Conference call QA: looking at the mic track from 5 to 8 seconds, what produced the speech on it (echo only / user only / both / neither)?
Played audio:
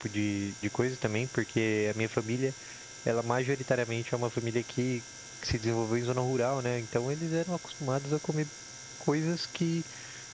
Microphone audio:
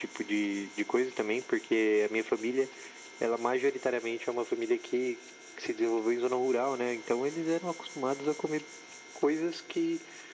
echo only